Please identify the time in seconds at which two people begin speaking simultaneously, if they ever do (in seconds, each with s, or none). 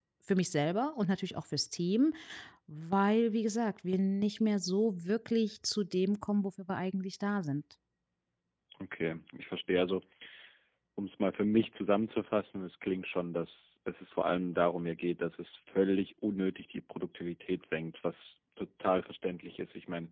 none